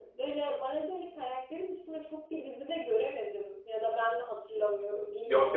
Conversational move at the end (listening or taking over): taking over